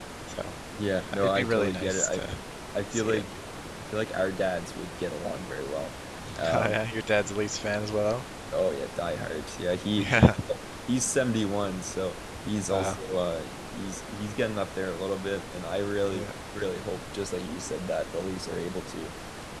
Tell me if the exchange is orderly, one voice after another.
No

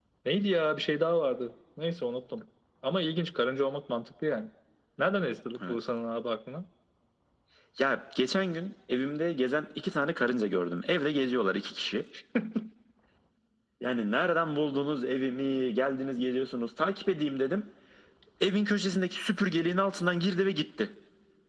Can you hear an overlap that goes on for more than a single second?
No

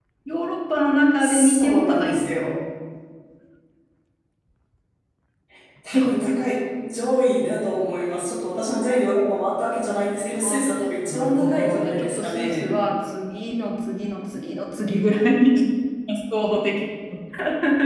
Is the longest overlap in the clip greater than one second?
Yes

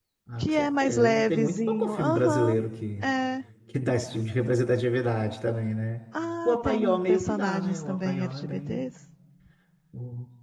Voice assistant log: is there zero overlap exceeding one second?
No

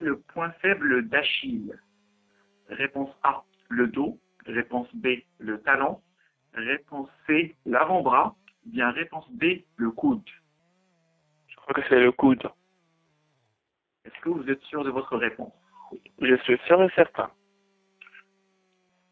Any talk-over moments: No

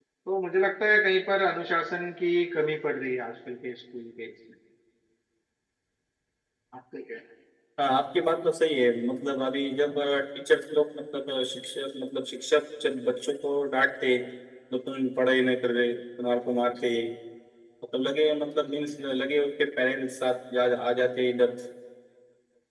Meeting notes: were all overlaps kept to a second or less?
Yes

